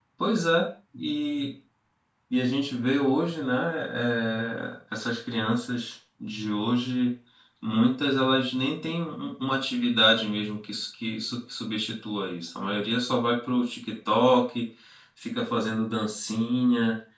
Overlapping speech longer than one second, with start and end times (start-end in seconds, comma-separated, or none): none